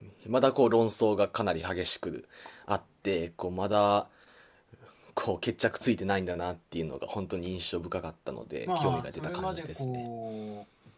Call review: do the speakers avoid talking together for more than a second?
No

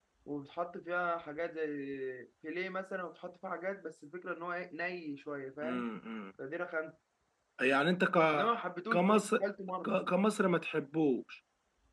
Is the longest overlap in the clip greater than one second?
No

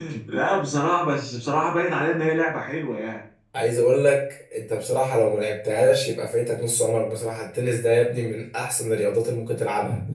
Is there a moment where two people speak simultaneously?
No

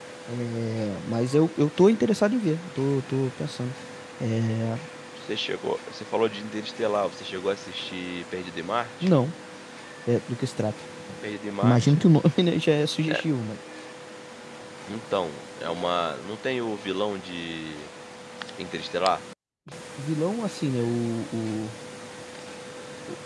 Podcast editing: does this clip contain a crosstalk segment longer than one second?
No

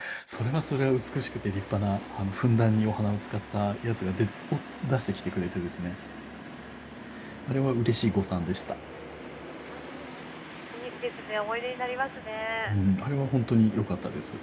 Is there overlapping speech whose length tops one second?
No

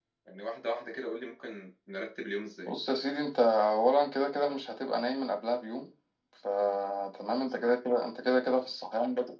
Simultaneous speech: No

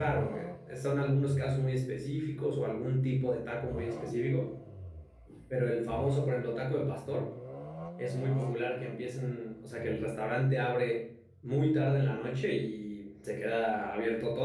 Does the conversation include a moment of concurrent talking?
No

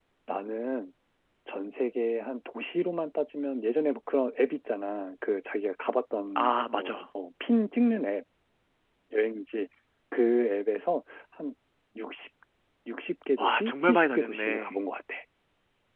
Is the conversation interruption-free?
No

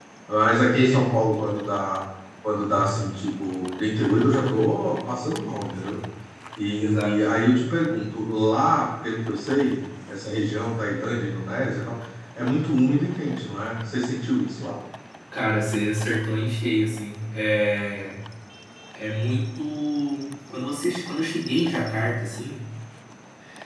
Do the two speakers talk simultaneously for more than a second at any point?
No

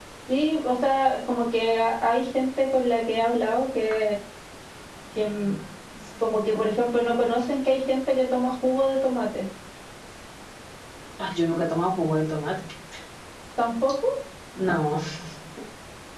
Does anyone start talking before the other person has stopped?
No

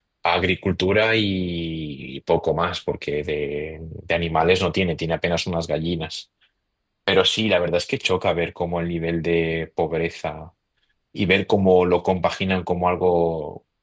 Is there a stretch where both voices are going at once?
No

